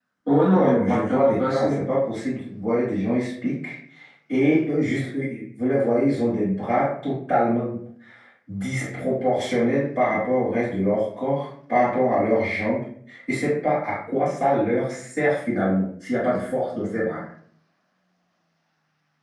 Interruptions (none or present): present